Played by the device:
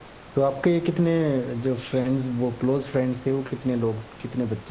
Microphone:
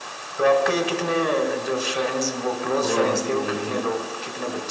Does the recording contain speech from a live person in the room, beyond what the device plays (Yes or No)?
Yes